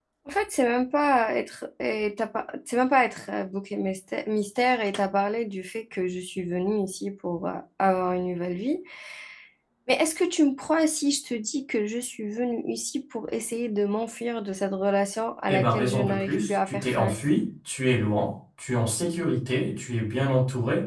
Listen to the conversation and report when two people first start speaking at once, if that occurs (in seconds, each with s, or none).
15.5 s